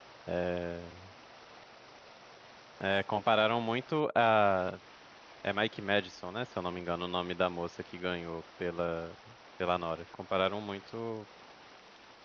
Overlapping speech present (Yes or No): No